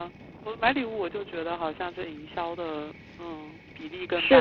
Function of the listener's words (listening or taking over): taking over